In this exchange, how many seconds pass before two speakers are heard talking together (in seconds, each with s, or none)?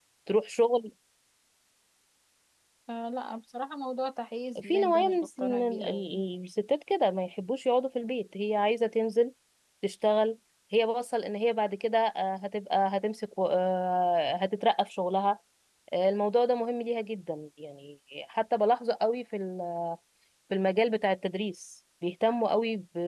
4.5 s